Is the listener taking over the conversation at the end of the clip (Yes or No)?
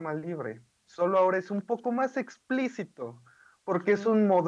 No